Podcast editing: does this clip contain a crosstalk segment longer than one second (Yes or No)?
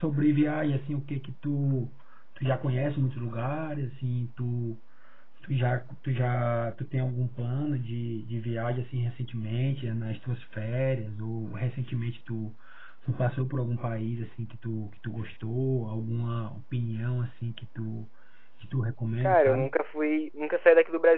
No